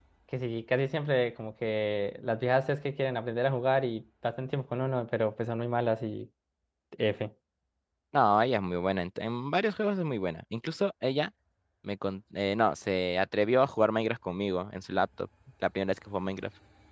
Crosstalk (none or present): none